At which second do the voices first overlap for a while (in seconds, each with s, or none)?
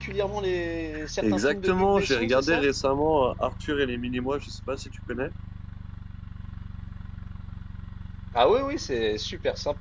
1.2 s